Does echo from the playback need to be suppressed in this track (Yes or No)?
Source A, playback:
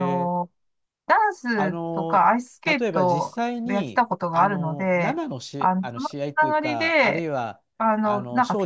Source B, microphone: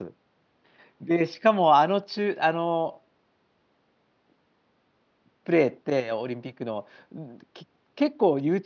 No